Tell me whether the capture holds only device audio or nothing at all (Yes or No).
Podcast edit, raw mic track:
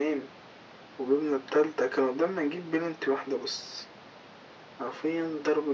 Yes